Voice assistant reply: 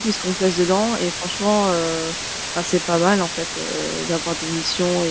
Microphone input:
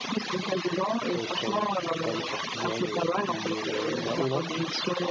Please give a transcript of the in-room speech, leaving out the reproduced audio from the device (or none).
Peut-être, heu, je sais pas, le Portugal, heu, ou les la la Hollande,